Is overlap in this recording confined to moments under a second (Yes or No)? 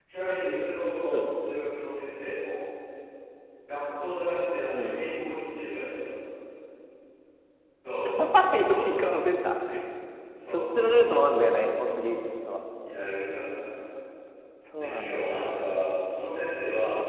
No